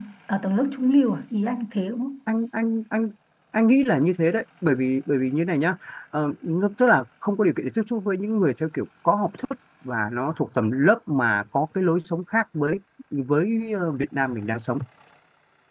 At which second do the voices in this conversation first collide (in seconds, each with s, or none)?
none